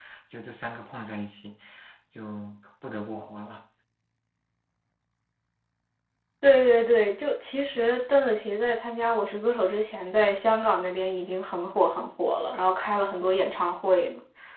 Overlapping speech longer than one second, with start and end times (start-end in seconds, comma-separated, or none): none